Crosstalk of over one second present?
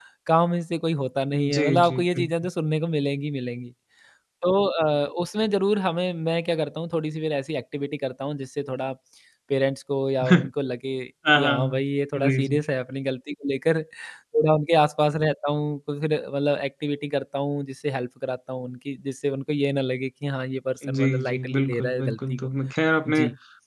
Yes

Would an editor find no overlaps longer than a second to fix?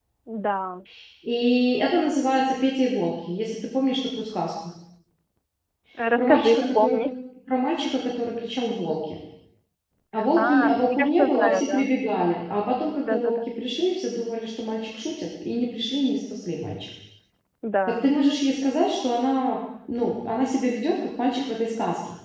No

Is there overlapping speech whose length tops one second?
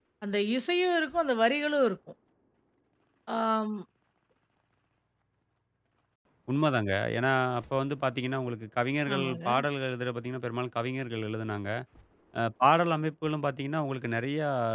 No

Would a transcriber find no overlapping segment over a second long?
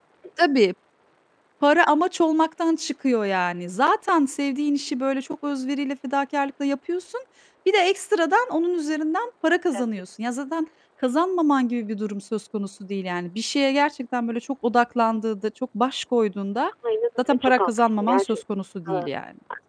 No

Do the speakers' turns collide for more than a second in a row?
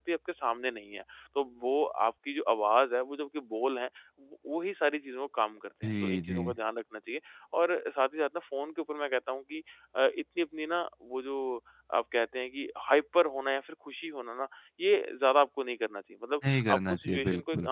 Yes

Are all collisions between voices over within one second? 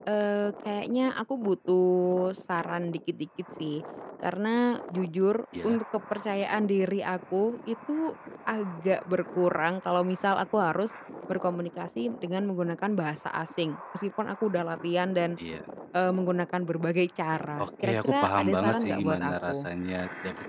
No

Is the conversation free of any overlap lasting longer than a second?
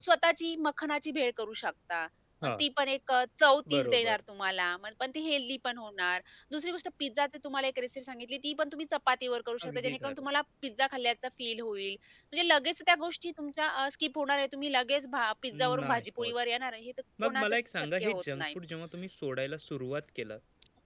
No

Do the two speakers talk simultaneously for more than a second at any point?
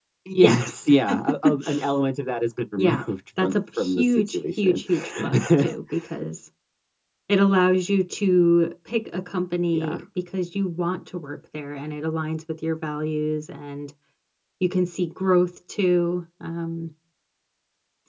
Yes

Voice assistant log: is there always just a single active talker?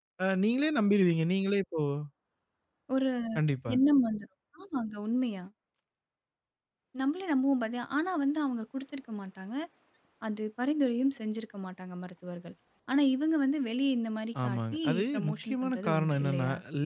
No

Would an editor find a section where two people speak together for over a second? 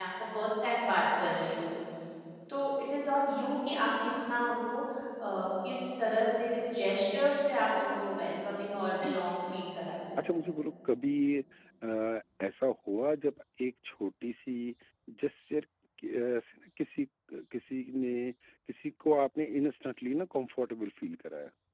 No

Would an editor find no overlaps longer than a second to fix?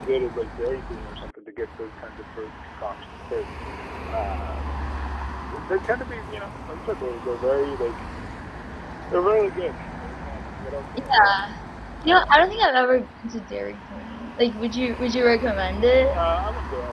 Yes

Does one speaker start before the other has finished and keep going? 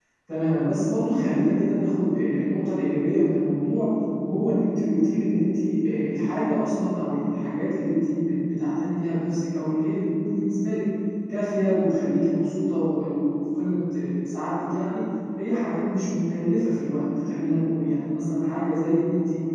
No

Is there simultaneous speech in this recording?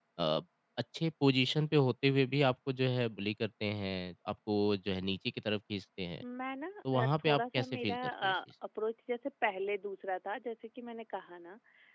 Yes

